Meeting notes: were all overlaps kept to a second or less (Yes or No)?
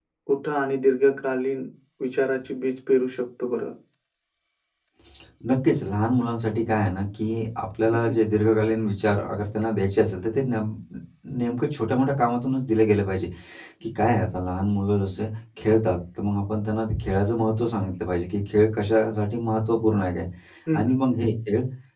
Yes